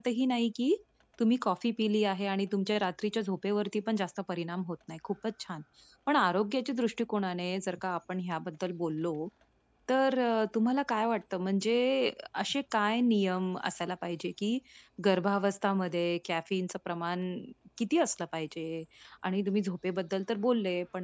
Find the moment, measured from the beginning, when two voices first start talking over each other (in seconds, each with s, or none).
none